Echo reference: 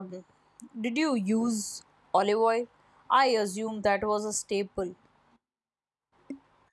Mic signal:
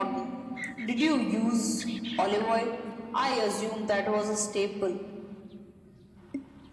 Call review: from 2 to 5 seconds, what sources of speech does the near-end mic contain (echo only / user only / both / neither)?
echo only